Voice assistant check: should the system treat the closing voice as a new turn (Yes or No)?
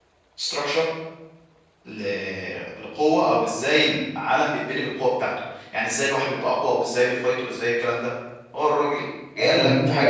Yes